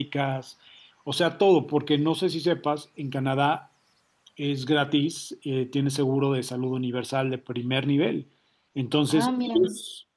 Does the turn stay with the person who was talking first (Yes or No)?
Yes